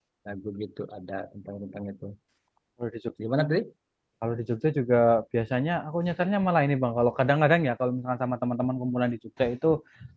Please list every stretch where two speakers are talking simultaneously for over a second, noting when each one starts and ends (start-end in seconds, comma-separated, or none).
none